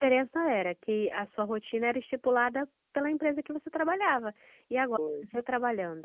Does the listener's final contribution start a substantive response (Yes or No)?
No